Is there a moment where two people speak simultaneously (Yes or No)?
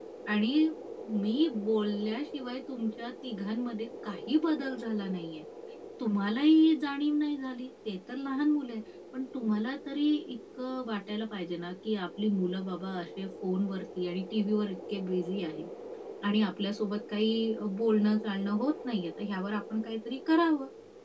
No